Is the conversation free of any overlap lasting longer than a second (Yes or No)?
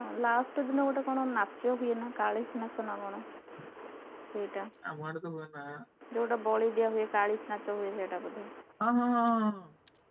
Yes